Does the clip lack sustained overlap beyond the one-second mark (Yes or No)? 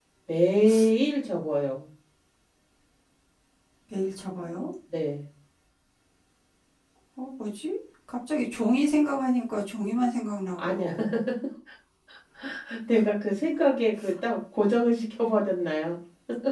Yes